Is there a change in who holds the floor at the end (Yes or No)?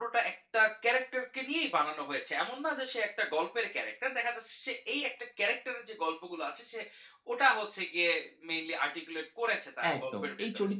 Yes